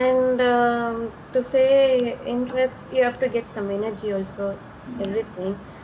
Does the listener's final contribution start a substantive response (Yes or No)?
No